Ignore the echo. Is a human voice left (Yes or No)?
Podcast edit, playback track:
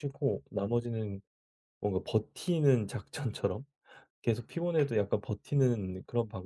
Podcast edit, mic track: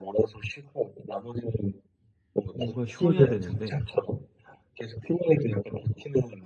Yes